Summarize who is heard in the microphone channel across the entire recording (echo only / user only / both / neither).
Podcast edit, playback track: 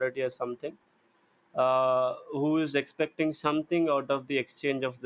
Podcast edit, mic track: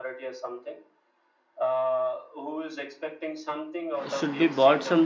both